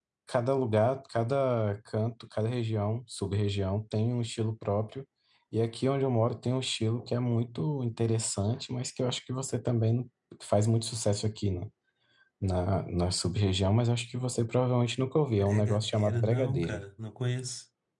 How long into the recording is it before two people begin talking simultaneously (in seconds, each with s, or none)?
15.3 s